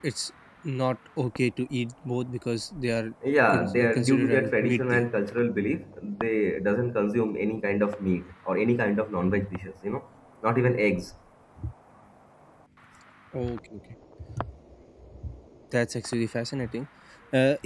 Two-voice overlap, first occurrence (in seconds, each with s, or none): 3.5 s